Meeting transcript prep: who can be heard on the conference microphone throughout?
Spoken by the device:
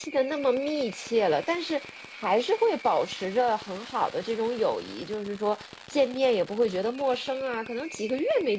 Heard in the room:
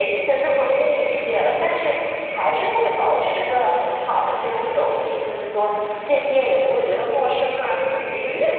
echo only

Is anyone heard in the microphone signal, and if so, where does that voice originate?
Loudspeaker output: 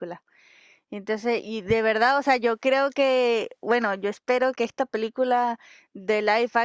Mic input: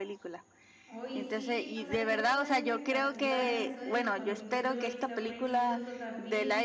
both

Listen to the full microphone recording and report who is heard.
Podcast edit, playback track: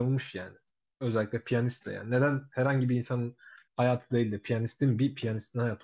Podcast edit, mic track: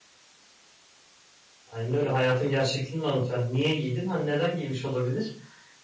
user only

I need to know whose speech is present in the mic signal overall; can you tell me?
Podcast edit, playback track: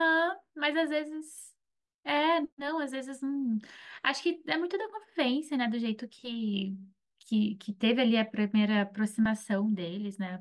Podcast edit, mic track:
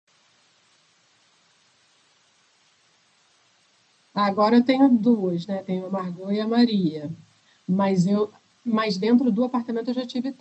user only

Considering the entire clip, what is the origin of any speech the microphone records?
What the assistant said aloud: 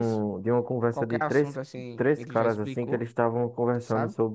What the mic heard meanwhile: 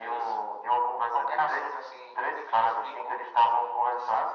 echo only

